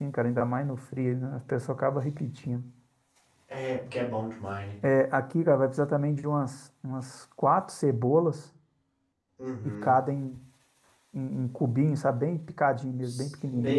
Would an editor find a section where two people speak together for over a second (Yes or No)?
No